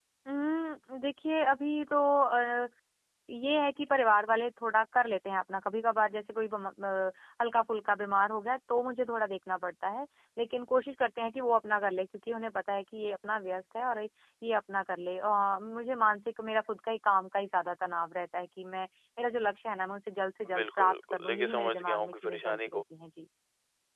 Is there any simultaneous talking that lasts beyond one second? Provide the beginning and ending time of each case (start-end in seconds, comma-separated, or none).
20.5-22.8